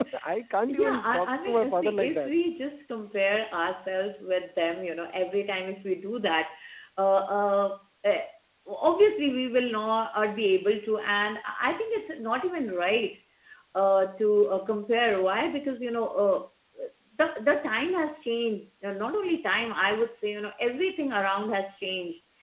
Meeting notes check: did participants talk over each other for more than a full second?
Yes, from 0.7 s

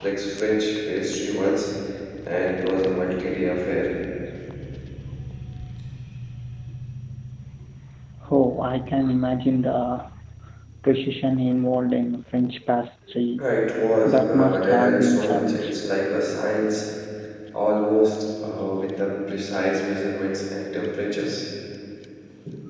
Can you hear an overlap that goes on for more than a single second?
Yes, from 14.1 s

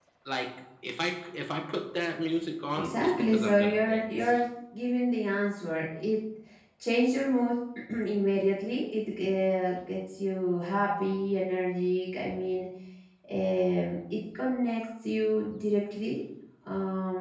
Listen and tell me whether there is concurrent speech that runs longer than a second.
Yes, from 2.7 s

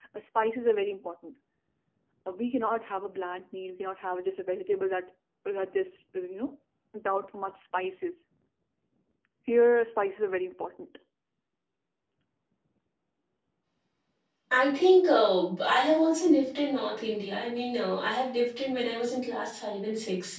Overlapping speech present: No

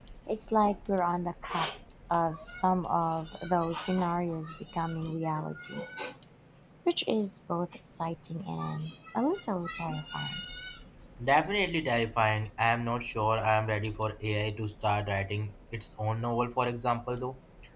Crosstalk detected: No

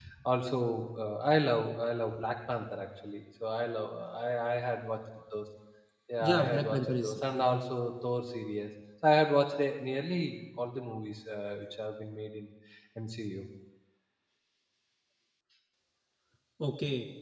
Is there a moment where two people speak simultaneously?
Yes, from 6.2 s

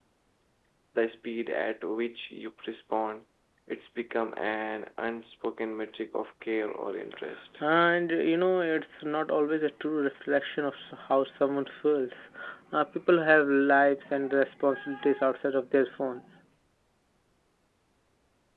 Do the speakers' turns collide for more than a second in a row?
No

